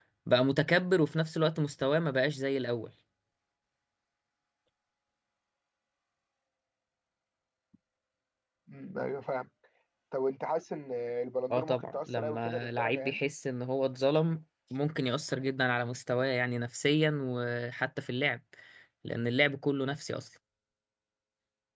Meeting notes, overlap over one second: present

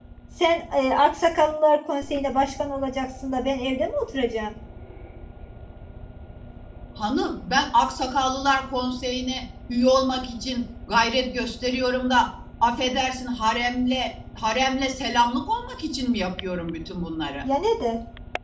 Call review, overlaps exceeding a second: none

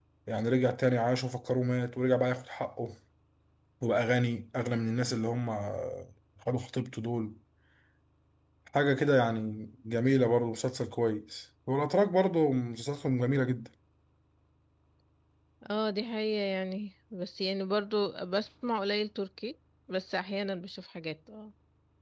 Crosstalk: none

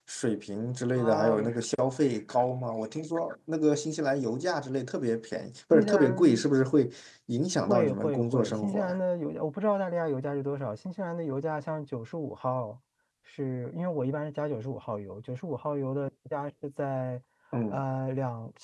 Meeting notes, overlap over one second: present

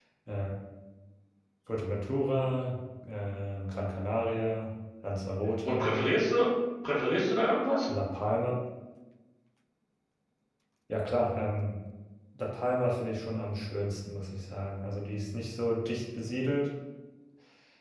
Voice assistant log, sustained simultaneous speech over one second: none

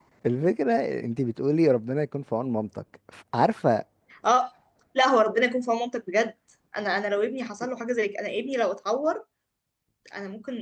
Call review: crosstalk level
none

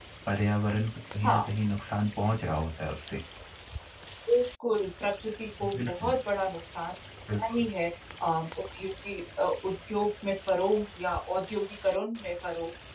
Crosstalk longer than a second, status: none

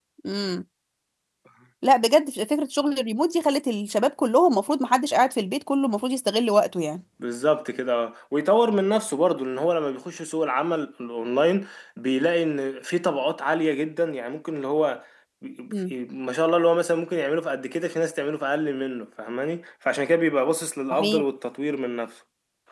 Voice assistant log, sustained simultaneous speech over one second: none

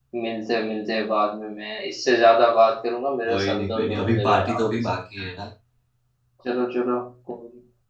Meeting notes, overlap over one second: present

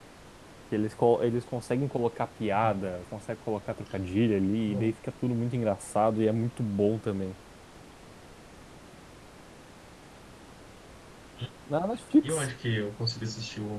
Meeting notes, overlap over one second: none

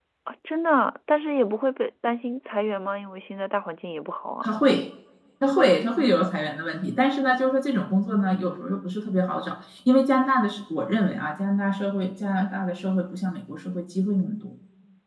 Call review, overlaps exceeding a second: none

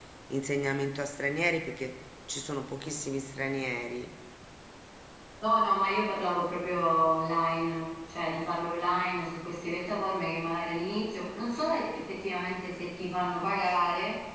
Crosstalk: none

